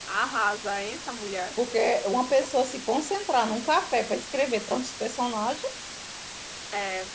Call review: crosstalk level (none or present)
none